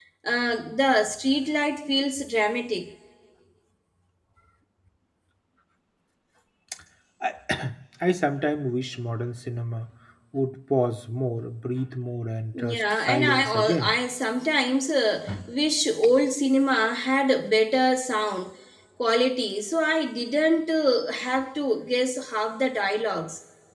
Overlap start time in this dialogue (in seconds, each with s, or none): 12.5 s